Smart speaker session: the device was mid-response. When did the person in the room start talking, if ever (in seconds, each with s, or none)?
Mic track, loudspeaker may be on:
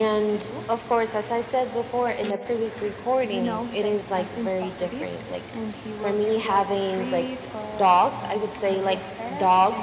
none